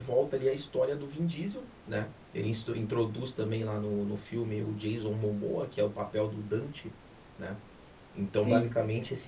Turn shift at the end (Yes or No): No